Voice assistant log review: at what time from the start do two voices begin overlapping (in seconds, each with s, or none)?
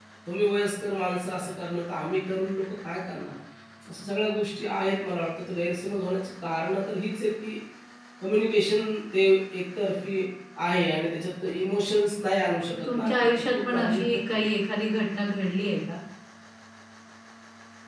12.7 s